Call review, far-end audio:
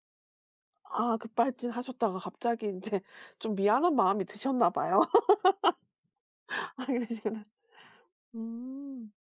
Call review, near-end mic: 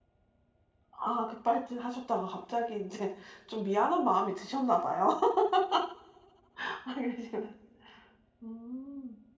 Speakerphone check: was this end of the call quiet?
Yes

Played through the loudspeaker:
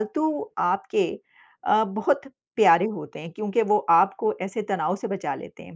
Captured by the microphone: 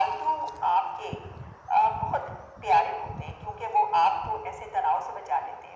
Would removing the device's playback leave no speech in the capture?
Yes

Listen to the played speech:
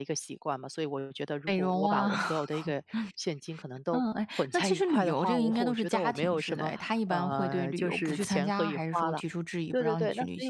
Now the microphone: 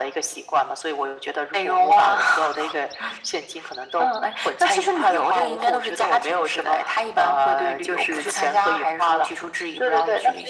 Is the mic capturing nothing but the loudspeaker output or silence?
Yes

